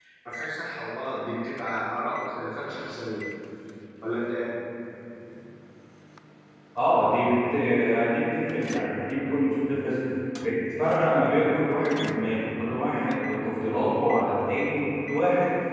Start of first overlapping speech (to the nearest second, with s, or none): none